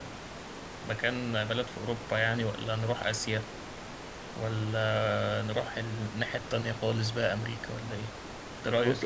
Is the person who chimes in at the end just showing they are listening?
No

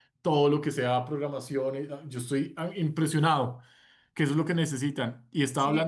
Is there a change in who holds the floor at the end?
No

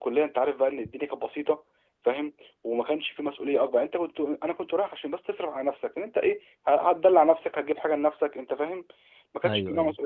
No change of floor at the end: Yes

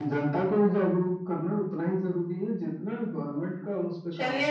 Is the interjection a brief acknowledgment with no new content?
No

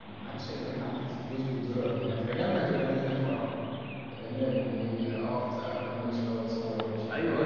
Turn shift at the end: Yes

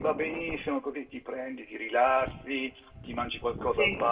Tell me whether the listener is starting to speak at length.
No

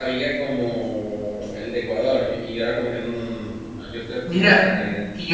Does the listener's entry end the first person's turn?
Yes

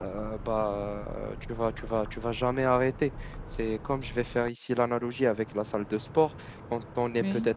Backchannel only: Yes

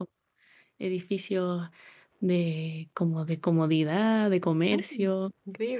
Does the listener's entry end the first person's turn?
Yes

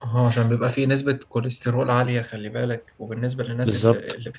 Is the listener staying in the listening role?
Yes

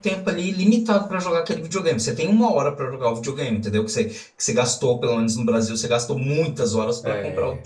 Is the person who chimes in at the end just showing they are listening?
Yes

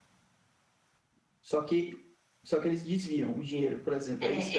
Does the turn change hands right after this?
Yes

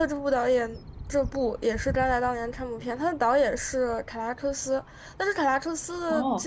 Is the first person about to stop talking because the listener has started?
Yes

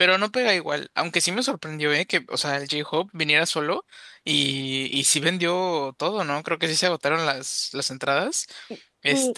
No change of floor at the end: No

